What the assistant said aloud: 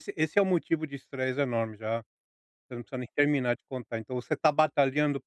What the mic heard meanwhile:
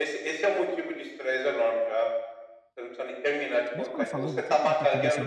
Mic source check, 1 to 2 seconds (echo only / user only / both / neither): echo only